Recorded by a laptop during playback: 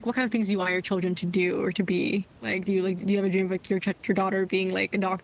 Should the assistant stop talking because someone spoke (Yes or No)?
Yes